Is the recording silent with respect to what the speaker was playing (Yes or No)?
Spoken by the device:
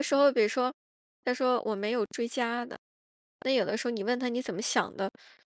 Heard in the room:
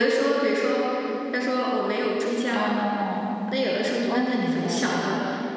No